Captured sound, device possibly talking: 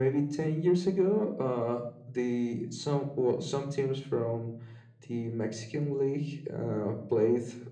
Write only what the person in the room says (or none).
none